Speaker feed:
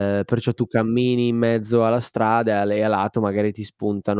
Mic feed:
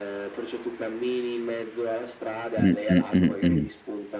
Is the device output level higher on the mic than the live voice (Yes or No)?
No